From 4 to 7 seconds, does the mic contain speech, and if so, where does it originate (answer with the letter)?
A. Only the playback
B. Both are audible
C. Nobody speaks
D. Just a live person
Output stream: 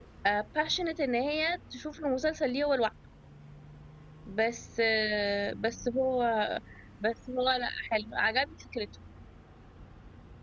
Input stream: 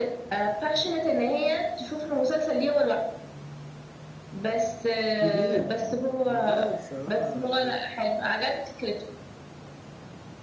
B